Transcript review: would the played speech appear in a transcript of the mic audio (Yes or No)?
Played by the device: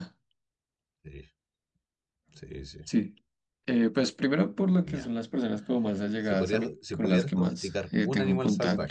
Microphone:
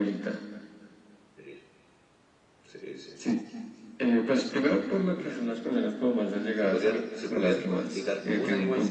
Yes